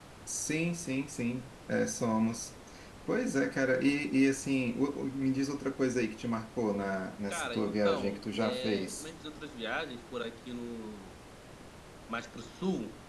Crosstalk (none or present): present